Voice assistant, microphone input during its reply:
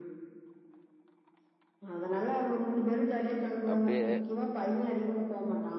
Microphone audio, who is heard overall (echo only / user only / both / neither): both